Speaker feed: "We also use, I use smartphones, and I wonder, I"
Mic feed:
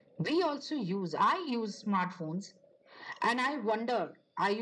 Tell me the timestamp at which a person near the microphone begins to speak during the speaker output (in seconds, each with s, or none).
none